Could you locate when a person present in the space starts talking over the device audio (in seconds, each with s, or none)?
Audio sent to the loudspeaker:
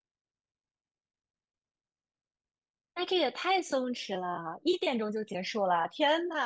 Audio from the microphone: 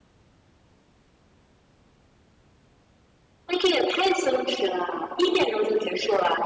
none